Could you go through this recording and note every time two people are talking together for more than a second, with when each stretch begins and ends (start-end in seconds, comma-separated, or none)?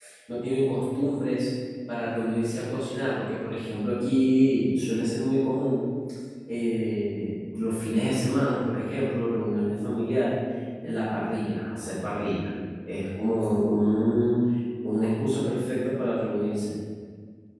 none